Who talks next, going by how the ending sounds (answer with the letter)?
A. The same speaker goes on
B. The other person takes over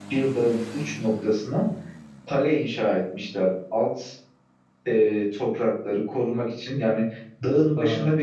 A